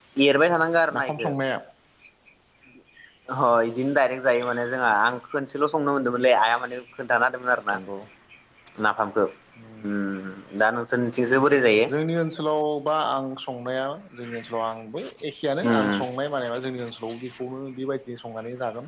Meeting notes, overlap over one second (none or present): none